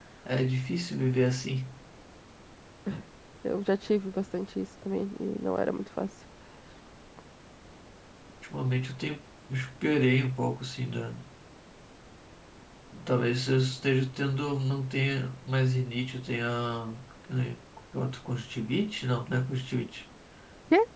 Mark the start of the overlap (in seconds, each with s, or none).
none